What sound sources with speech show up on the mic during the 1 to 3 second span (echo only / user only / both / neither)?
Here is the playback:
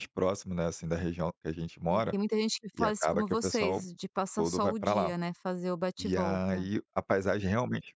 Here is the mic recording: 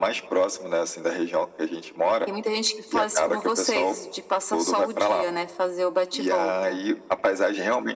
echo only